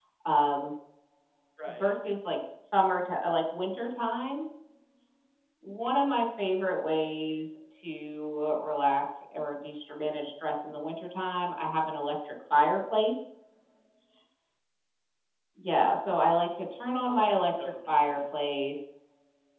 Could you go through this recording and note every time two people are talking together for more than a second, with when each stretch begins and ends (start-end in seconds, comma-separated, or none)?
17.1-18.3